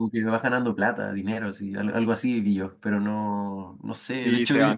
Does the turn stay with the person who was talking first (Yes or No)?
No